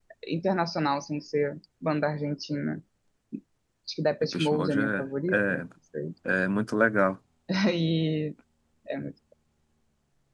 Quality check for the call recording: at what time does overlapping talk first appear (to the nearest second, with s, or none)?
4 s